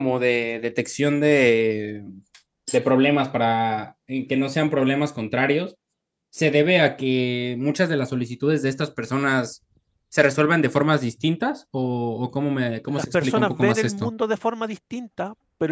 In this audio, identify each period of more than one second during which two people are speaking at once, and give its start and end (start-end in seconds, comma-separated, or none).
12.9-14.1